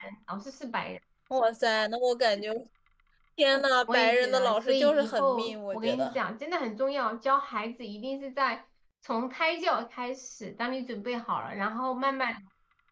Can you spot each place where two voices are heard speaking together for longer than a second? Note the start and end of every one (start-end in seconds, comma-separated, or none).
3.9-6.2